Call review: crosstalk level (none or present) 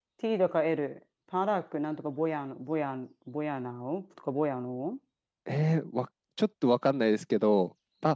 none